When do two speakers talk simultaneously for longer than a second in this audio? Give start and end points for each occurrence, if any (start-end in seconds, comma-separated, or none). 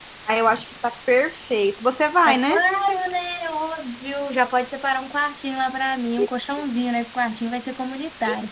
none